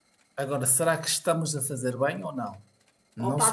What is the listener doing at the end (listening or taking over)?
taking over